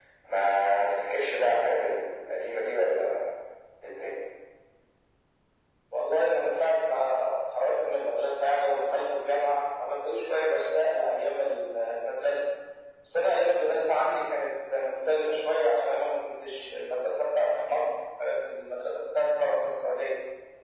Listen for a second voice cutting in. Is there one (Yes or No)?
No